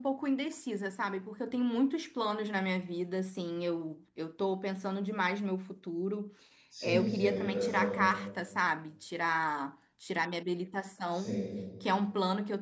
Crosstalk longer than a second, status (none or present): present